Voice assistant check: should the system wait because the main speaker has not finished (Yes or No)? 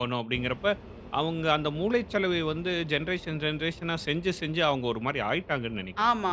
No